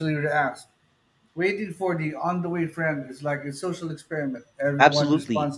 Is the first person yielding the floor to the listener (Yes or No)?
Yes